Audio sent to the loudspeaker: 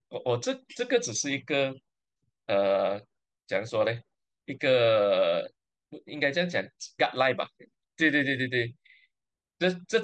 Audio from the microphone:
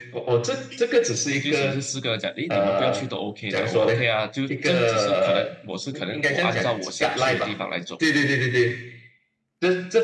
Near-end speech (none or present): present